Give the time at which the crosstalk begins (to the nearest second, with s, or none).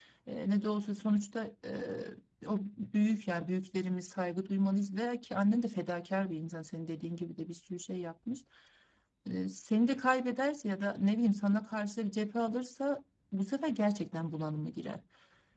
none